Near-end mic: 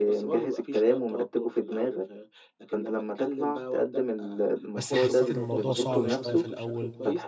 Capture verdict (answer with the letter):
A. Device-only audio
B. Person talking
B